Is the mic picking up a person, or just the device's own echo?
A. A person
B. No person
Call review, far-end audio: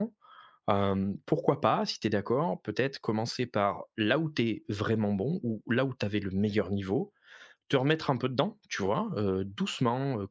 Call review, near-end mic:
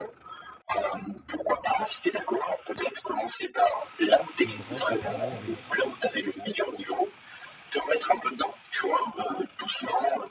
A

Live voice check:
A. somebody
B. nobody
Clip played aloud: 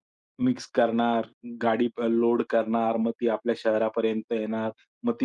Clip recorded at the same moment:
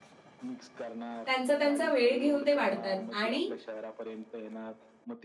A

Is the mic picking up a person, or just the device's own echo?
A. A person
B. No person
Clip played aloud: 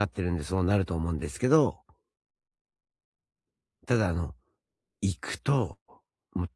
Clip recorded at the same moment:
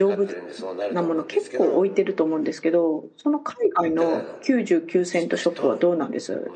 A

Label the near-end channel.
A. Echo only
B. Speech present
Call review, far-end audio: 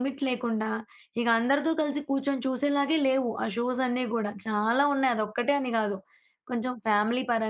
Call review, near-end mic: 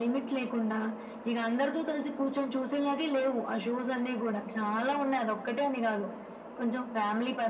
A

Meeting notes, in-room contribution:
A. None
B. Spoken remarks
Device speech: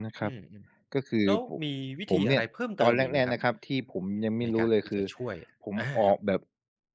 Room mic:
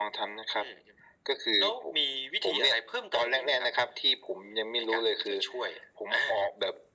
A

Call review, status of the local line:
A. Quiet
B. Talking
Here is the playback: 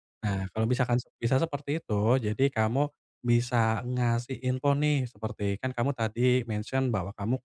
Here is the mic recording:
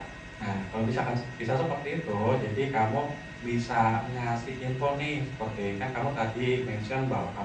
A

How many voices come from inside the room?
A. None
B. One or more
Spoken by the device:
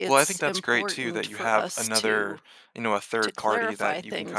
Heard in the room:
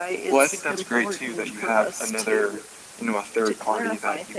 A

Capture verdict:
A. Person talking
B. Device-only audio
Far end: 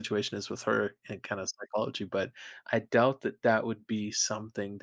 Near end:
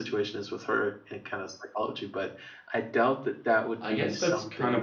A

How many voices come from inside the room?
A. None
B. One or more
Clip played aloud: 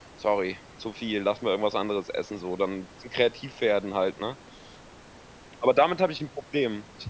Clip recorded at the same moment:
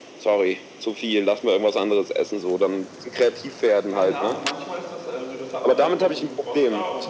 B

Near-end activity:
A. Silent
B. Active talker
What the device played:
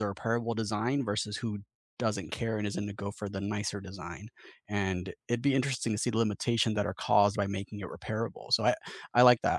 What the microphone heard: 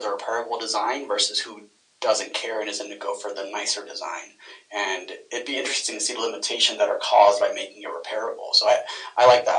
A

